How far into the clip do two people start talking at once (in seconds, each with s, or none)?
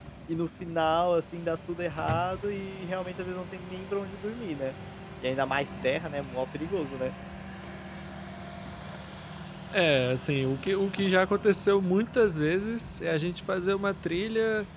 none